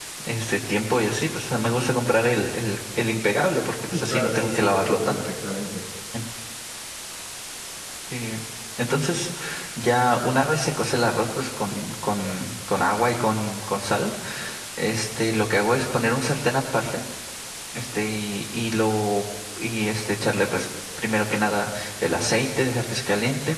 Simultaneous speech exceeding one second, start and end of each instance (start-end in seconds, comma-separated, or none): 3.9-5.3